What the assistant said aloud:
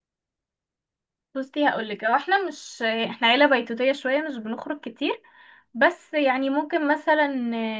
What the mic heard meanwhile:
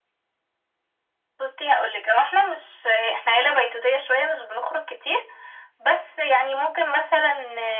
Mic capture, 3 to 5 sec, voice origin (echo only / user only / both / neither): echo only